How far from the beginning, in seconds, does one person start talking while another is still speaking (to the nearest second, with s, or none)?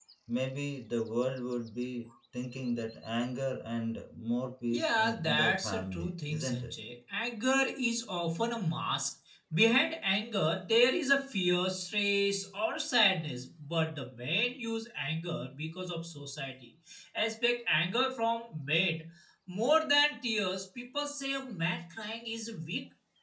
5 s